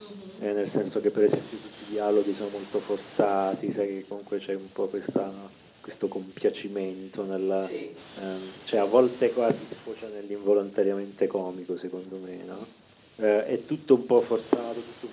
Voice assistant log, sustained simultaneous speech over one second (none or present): none